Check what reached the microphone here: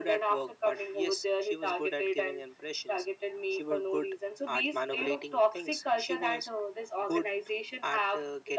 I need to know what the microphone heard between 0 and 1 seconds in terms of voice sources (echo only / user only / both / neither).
echo only